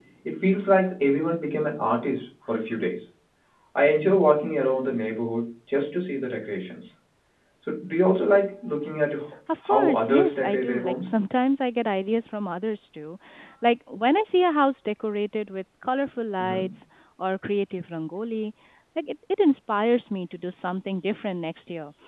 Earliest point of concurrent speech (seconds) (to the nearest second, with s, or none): 9 s